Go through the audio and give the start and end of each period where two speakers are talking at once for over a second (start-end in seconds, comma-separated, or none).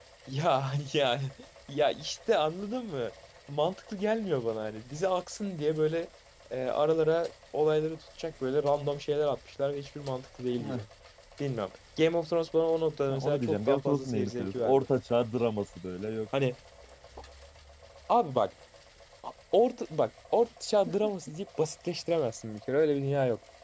13.1-14.9